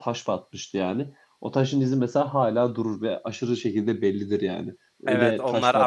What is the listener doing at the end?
taking over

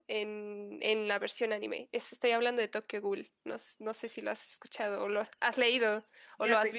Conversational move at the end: taking over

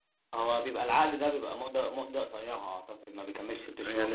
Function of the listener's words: taking over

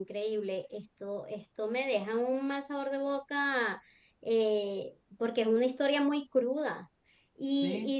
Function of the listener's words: listening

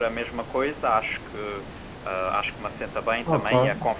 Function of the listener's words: listening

